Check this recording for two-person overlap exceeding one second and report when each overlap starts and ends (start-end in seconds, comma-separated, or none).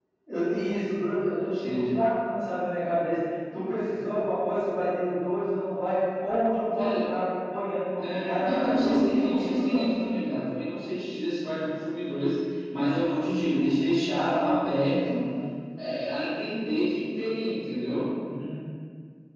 8.0-9.9